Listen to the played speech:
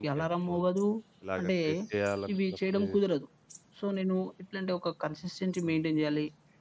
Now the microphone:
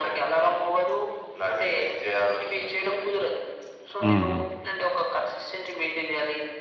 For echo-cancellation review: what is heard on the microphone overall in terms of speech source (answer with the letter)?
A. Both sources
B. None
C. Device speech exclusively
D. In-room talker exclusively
A